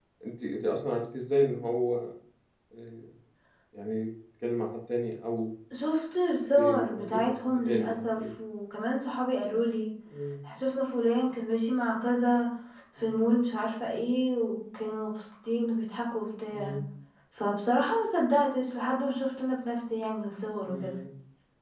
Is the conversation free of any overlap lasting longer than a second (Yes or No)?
No